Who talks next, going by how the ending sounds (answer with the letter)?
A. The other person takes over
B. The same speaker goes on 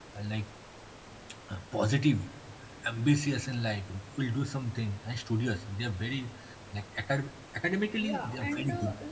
A